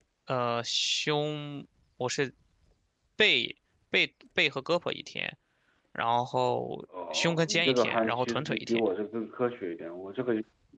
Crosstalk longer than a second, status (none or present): present